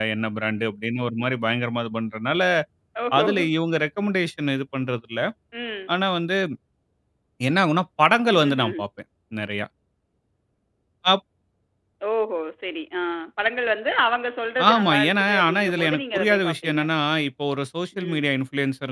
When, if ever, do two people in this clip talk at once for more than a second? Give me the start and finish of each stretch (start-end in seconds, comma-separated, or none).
14.7-16.8